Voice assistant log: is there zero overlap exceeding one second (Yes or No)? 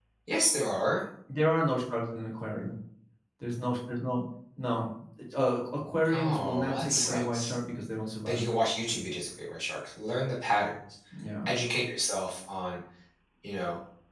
No